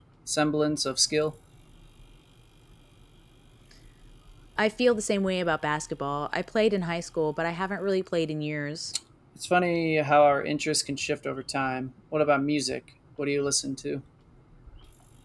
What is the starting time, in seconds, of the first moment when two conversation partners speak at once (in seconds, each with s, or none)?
none